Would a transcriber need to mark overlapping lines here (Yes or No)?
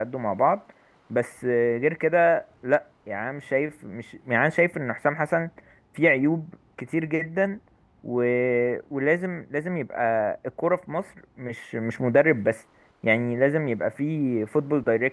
No